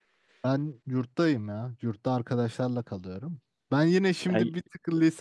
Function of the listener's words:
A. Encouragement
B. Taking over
A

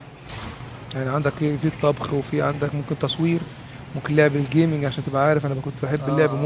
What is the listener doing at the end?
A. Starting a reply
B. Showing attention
A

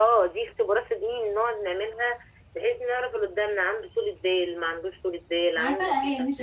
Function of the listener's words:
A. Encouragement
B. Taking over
B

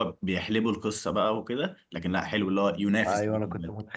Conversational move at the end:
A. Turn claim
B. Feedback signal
A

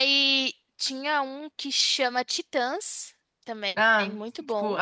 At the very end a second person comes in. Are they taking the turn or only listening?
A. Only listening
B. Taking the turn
B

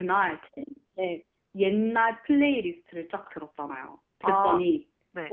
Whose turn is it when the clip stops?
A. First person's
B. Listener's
A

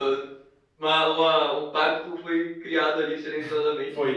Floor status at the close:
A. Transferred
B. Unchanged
A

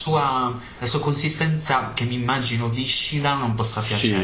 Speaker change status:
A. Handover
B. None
A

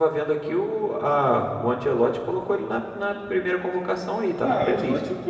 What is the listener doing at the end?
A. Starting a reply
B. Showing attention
A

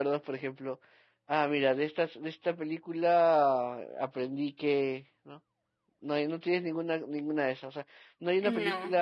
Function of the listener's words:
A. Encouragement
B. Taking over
A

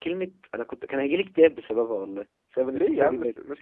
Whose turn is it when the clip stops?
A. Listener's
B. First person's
A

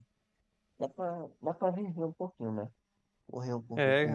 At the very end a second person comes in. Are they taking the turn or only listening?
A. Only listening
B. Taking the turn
B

